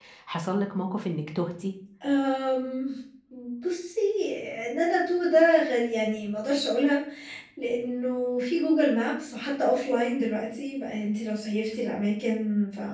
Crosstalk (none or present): none